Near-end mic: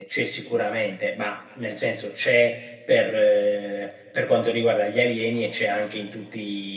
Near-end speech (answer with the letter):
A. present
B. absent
A